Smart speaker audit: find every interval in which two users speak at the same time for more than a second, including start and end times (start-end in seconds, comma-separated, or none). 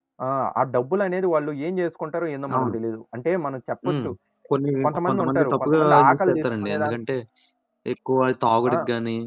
5.1-7.0